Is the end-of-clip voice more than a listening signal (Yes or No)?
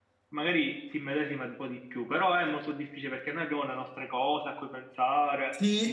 Yes